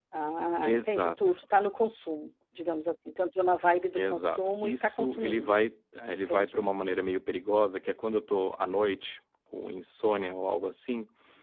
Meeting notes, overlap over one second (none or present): present